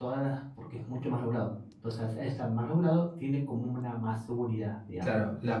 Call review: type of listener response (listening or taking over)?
taking over